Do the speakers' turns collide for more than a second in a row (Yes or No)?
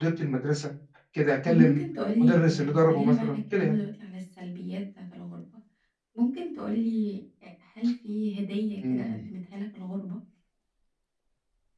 Yes